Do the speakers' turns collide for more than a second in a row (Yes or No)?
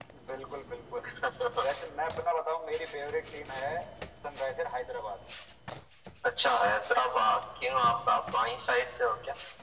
No